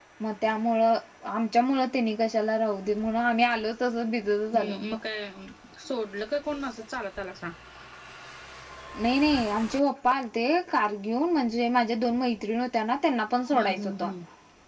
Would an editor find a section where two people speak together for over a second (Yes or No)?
No